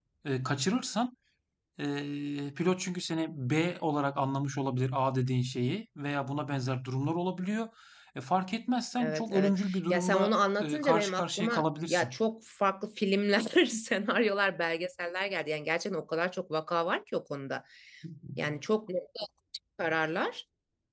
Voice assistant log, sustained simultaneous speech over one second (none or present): present